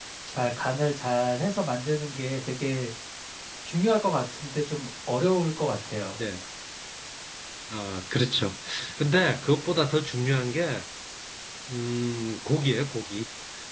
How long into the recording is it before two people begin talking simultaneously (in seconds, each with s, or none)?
none